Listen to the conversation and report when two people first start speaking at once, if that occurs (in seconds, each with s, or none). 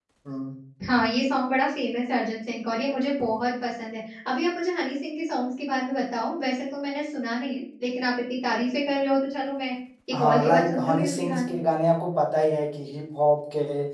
10.1 s